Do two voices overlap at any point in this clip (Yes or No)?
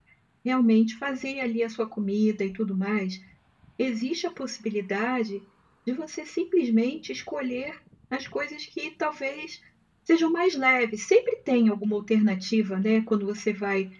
No